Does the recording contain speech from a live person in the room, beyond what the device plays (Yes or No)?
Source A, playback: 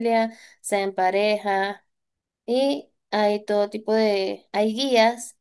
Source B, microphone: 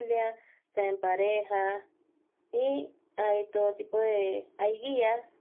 No